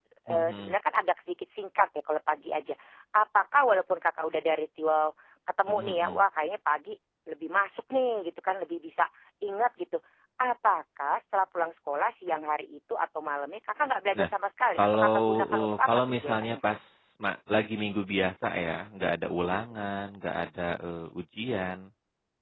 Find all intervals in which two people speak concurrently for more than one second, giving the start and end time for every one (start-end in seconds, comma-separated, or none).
14.8-16.6